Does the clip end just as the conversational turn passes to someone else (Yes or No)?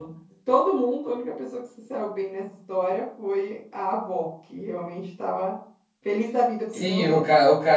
Yes